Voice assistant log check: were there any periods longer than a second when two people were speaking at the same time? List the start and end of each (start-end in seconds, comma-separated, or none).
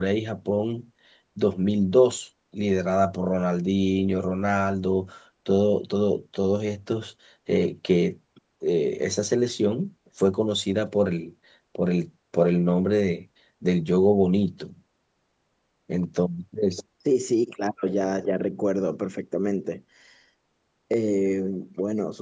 none